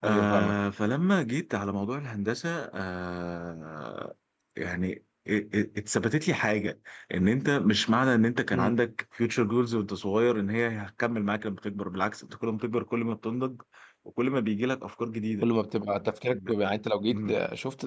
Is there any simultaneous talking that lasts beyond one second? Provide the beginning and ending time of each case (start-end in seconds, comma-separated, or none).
none